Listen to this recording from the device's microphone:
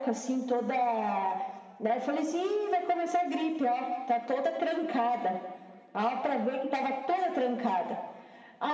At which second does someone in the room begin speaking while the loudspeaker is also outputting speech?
none

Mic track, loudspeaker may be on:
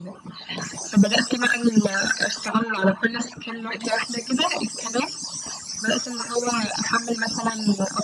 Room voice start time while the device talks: none

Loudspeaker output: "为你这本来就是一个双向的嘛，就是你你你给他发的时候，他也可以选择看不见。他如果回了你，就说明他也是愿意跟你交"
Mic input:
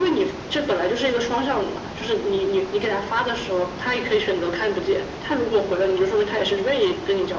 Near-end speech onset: none

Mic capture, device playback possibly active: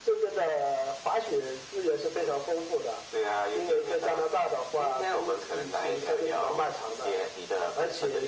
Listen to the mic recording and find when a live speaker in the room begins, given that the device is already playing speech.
none

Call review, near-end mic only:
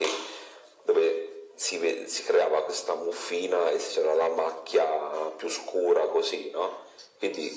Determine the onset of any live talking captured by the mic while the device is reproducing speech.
none

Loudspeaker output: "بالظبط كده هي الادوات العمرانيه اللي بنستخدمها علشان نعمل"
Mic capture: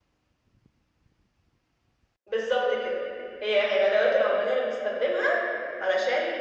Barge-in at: none

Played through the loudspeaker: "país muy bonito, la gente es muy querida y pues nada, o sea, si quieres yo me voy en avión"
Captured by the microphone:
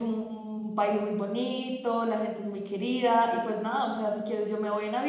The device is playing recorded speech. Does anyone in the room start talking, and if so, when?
none

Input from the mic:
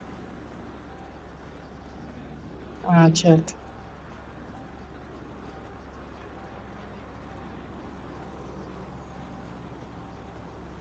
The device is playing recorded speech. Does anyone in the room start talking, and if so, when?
3 s

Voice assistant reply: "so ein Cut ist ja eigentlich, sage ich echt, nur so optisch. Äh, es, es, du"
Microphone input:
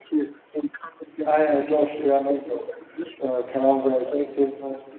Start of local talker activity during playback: 1 s

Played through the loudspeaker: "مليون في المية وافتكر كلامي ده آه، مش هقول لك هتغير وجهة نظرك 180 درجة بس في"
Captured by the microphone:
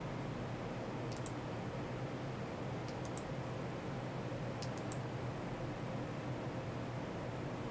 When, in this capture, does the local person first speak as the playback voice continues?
none

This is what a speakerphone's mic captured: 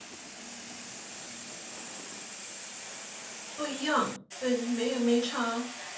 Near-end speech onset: 4 s

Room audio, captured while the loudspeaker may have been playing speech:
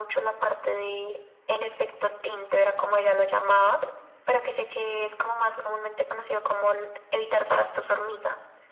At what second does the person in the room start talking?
none

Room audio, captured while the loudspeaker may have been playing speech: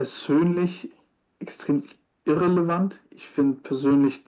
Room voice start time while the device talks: none

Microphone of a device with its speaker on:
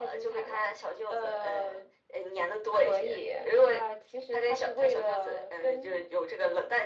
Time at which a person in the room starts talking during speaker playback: none

